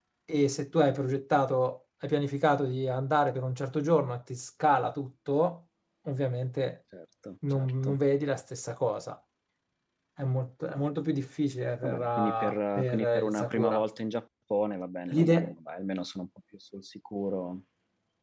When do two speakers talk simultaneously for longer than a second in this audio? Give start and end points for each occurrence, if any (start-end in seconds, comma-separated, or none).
11.8-13.8